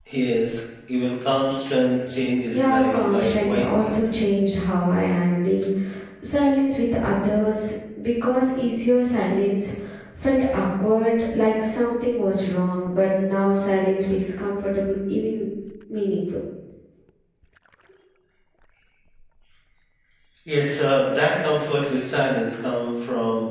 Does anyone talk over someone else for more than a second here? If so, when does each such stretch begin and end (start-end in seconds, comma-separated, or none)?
2.5-3.9